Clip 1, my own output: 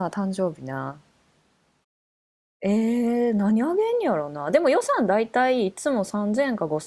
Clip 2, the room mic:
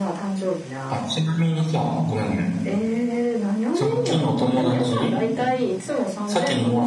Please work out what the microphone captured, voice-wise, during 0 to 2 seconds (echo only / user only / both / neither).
both